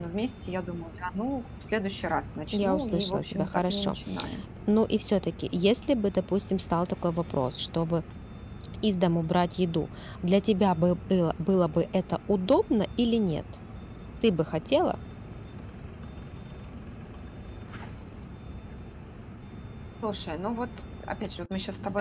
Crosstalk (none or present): present